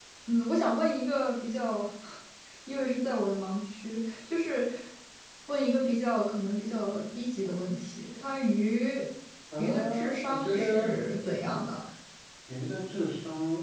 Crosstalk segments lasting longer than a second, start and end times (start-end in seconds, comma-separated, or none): 9.6-10.9